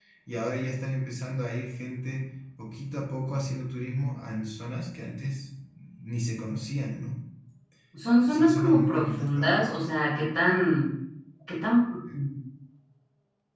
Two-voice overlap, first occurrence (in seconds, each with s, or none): 8.3 s